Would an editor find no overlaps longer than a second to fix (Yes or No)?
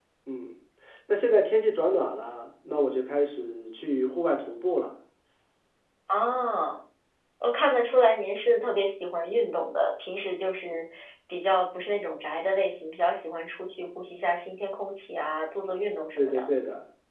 Yes